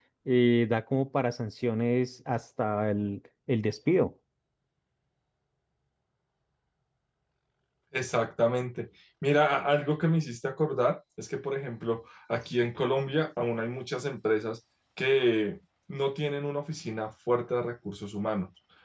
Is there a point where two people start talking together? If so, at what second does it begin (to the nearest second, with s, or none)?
none